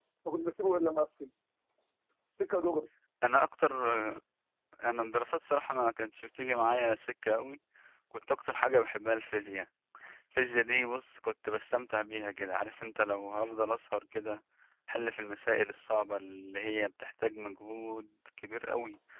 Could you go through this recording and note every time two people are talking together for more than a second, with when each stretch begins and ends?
none

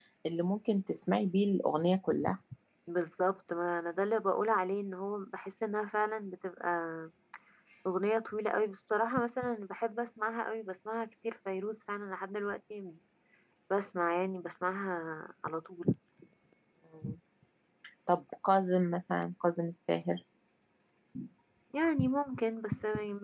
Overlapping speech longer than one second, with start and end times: none

